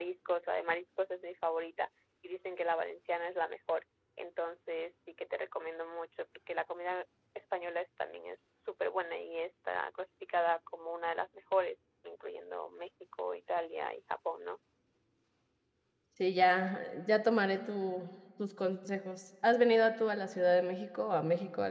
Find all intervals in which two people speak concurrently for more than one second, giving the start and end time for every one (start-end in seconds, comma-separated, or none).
none